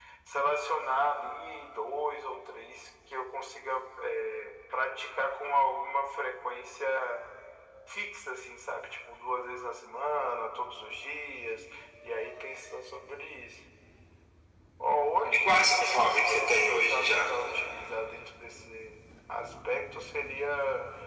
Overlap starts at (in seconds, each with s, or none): 15.3 s